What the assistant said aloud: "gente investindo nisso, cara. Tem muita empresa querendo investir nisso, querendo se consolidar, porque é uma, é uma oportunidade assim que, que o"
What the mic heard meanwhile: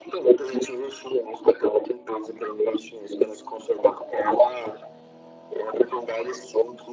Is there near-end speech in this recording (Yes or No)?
No